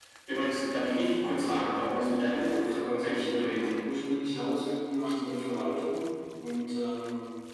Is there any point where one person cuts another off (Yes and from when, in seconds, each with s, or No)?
Yes, from 2.4 s